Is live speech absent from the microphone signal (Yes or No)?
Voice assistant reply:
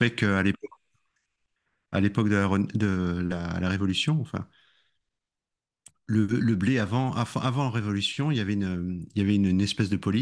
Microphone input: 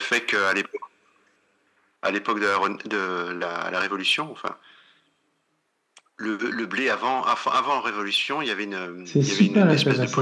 No